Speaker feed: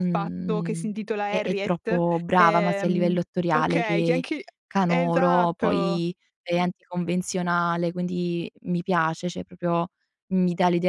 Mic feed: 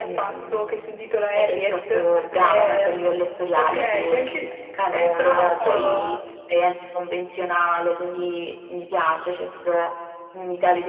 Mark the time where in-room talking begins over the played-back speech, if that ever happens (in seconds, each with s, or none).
5.6 s